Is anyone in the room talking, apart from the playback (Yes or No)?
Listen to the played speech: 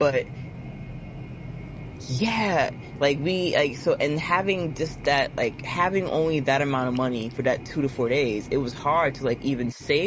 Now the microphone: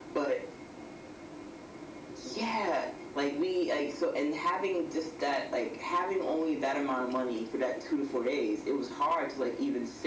No